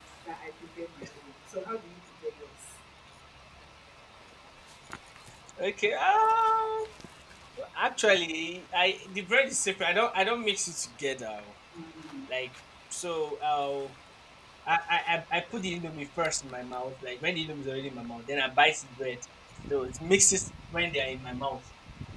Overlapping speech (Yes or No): No